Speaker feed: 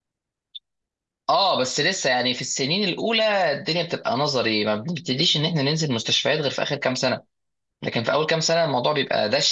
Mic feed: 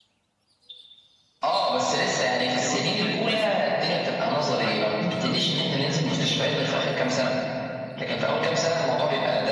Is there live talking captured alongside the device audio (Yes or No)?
Yes